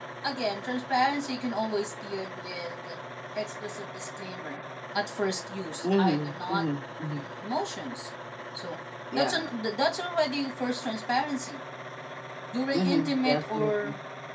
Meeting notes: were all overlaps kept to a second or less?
No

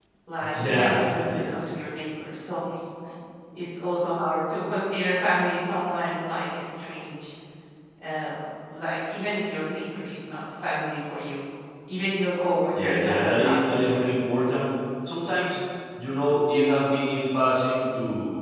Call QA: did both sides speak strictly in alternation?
No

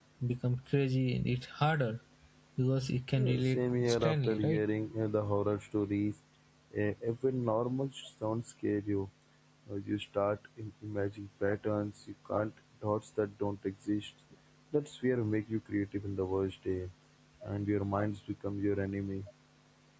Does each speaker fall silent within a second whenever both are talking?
No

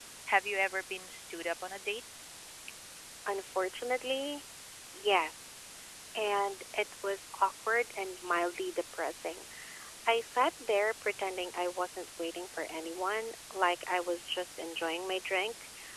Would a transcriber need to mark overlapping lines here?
No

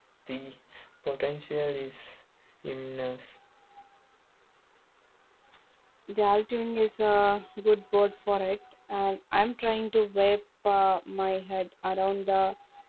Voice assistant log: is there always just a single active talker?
Yes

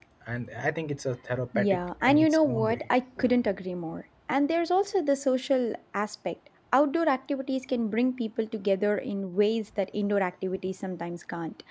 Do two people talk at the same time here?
Yes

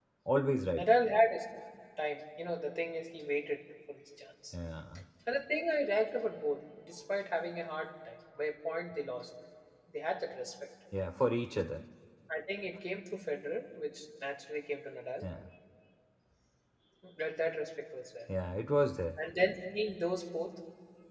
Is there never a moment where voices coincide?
Yes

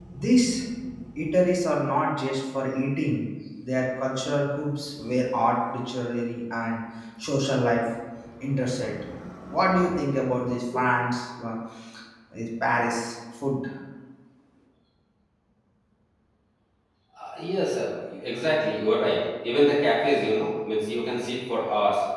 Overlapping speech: No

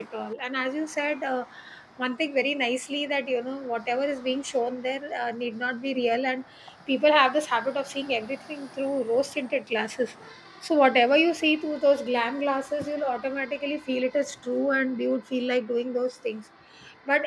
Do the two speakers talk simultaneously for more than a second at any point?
No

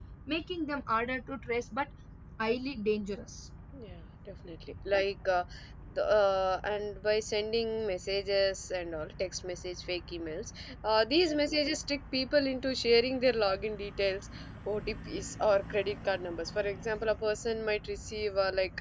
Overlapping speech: No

